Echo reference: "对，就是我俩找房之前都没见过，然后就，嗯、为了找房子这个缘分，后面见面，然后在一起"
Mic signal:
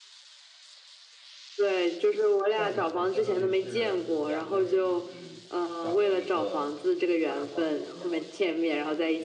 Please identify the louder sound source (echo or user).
echo